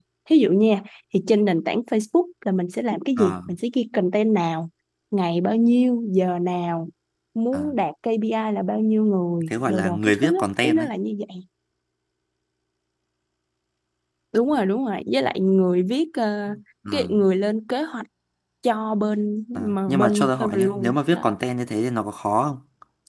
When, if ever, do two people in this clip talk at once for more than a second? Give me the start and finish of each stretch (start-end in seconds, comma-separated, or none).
9.5-10.8, 19.6-21.2